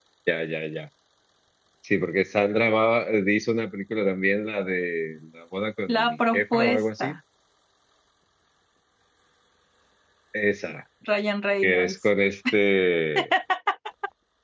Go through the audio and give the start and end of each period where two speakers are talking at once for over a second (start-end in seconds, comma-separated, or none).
5.9-7.1